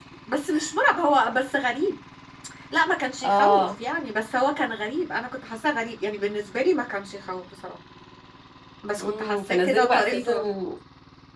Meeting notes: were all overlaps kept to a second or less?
No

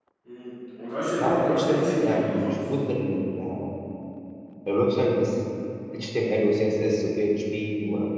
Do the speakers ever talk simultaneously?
Yes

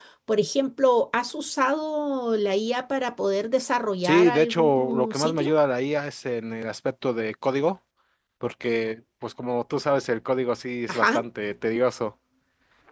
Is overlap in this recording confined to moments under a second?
No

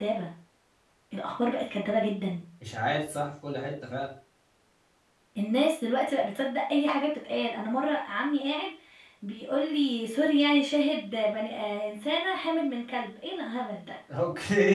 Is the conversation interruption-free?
Yes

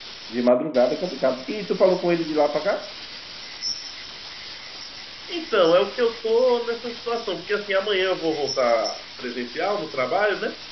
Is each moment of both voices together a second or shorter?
Yes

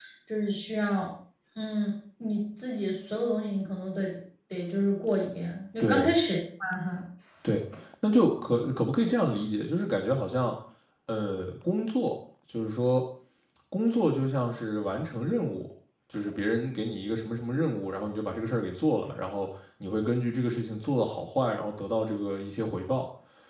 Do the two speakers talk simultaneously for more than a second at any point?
No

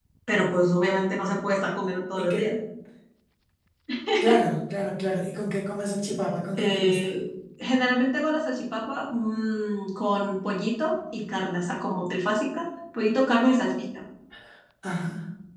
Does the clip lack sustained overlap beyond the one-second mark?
Yes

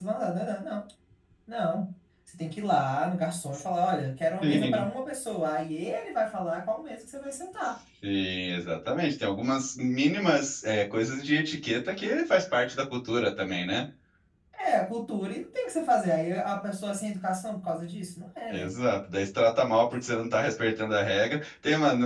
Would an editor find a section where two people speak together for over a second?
No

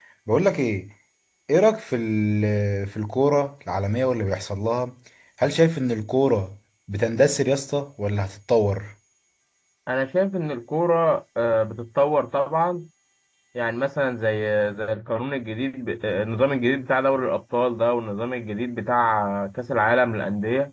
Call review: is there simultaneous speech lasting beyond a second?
No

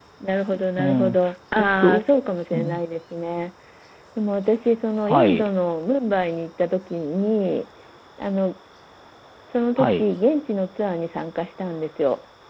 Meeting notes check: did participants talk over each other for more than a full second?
No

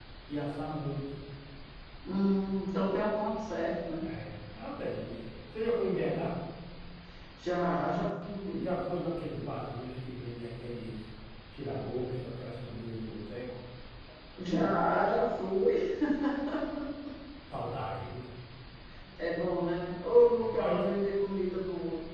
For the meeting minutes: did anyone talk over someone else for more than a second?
No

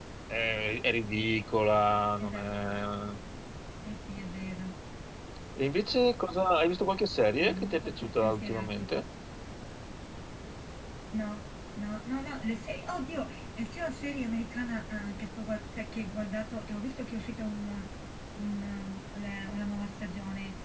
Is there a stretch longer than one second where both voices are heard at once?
Yes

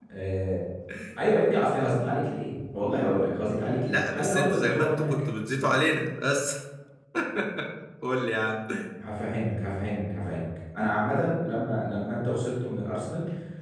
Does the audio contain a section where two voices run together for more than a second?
Yes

